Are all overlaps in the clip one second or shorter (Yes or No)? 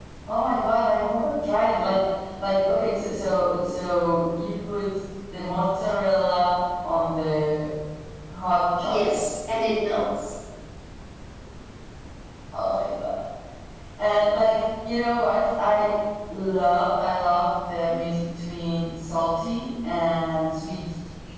Yes